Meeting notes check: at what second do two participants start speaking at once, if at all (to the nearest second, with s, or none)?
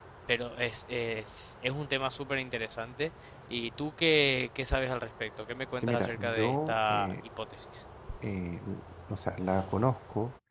6 s